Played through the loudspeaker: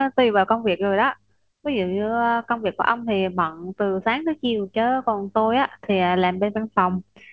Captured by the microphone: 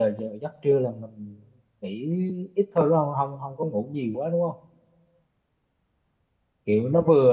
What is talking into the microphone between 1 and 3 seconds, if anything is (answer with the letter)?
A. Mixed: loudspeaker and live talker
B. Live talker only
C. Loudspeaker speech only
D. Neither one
B